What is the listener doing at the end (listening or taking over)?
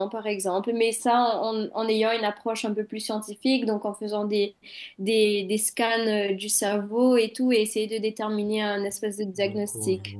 taking over